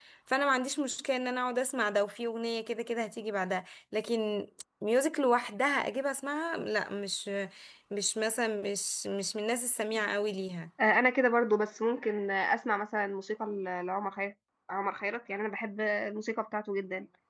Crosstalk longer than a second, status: none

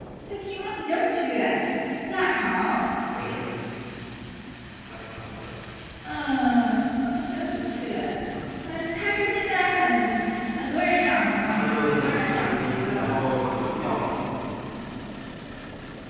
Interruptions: present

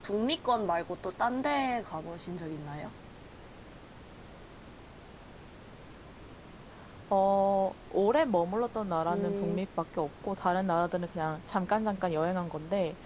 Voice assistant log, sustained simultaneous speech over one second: none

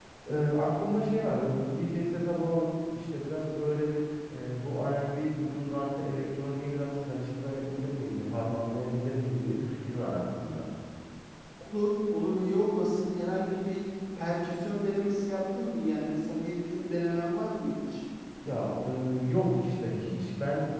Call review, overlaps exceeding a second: none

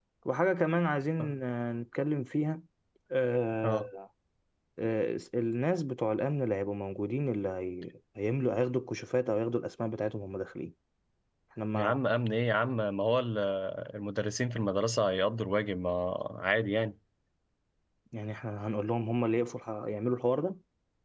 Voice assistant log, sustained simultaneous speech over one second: none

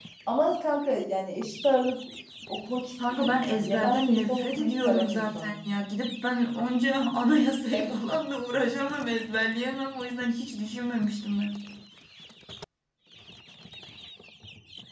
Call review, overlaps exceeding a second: present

